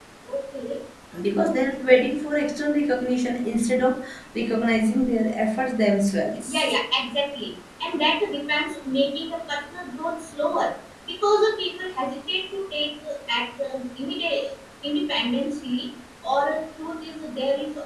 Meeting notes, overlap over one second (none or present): none